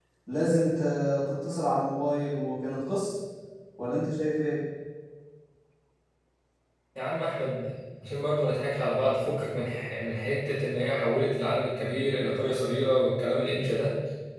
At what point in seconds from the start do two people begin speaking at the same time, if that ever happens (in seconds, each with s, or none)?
none